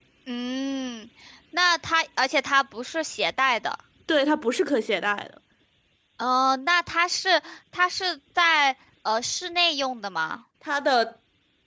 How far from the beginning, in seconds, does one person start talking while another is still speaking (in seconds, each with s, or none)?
none